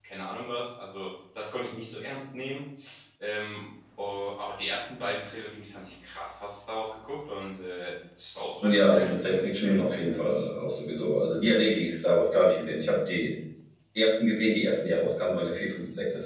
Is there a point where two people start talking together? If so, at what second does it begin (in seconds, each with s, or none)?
8.6 s